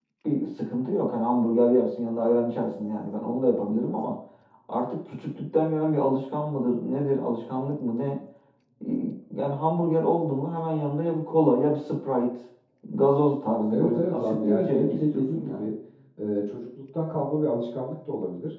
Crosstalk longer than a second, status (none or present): present